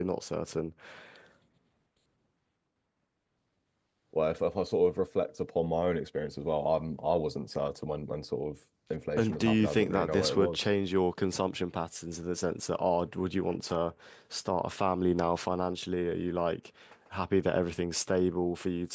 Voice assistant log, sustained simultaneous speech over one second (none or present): present